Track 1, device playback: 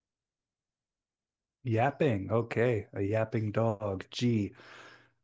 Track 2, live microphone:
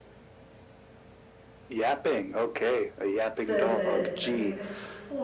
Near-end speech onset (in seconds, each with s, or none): 3.5 s